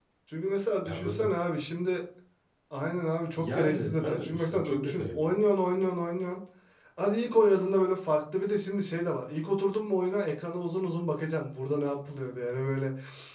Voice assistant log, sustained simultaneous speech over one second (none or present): present